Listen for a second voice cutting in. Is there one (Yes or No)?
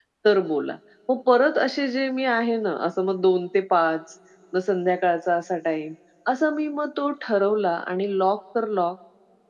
No